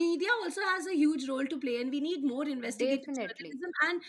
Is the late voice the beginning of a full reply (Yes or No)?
No